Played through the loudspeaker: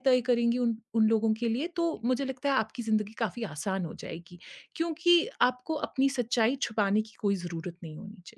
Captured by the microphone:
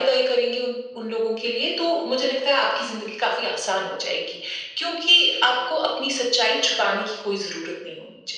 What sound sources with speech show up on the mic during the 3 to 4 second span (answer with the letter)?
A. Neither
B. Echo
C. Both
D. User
B